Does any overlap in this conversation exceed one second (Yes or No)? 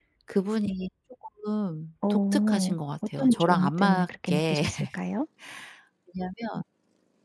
Yes